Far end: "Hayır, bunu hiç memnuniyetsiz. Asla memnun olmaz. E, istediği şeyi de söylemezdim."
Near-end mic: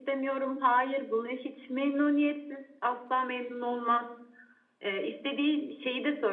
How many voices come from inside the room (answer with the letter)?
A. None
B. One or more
A